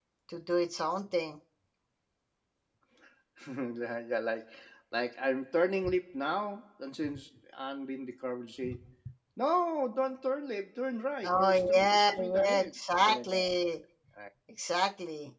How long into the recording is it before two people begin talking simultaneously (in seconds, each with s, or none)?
11.2 s